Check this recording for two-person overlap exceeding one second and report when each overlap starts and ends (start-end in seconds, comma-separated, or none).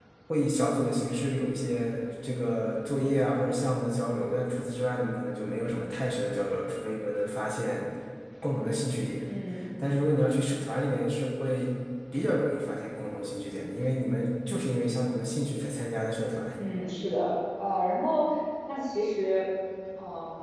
none